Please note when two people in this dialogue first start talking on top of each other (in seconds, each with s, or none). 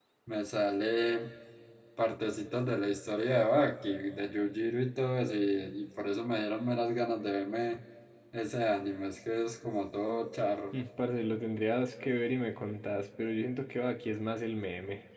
none